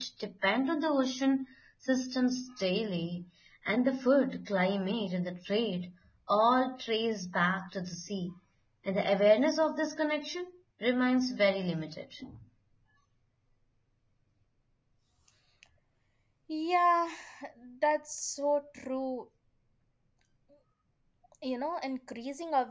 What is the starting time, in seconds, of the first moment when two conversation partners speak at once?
none

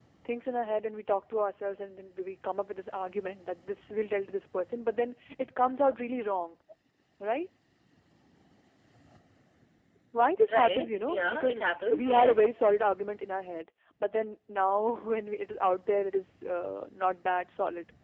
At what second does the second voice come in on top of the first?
10.5 s

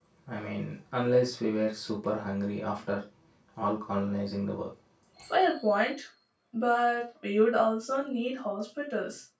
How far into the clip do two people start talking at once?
none

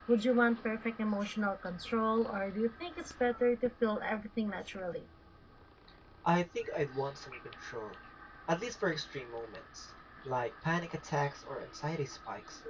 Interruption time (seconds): none

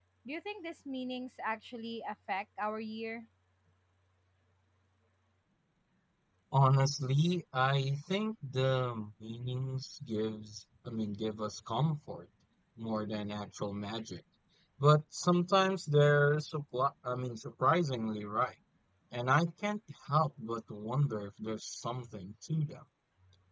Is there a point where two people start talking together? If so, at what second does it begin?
none

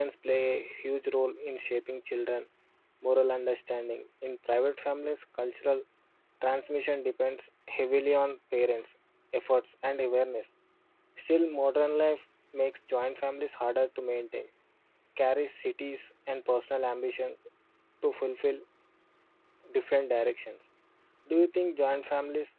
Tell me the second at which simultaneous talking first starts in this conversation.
none

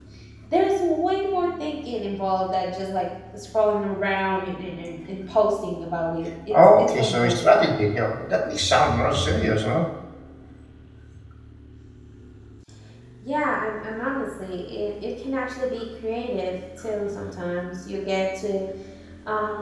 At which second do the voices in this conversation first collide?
6.5 s

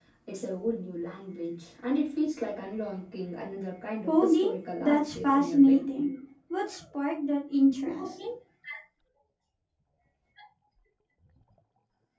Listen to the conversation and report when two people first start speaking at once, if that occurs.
4.1 s

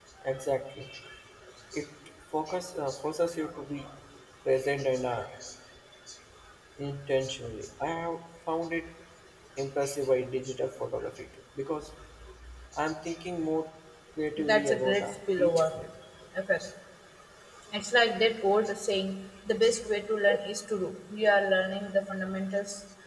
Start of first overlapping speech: 14.4 s

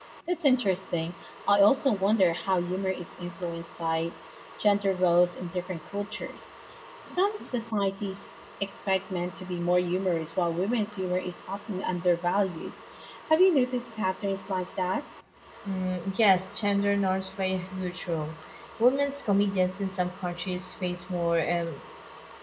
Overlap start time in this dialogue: none

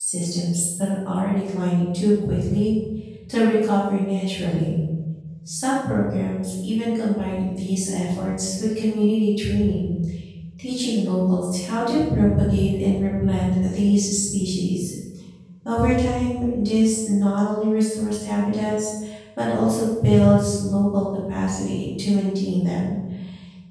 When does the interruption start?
none

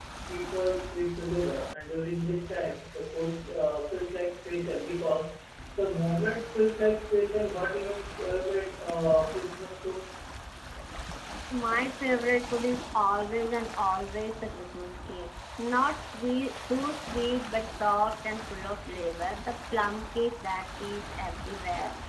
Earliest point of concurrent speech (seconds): none

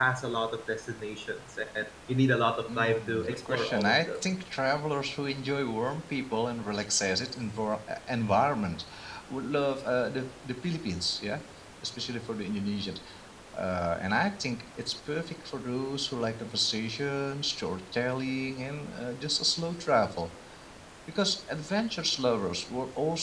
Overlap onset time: 2.7 s

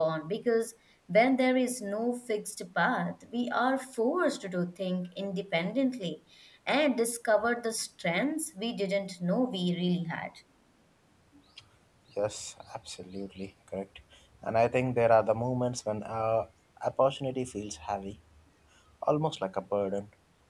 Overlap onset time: none

